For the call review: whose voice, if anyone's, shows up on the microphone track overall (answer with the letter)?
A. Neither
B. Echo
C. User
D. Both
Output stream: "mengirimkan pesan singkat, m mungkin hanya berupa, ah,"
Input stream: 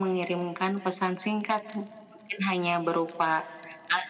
B